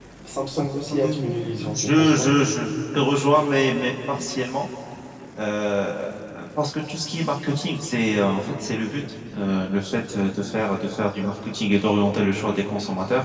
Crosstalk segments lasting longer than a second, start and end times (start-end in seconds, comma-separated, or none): 1.0-2.3